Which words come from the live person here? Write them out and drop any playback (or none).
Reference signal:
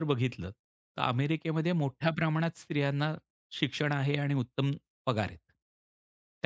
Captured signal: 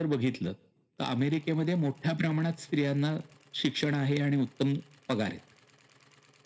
none